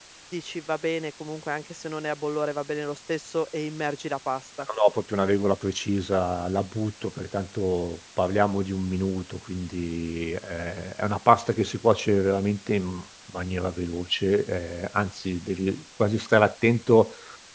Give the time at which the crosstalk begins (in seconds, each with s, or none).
none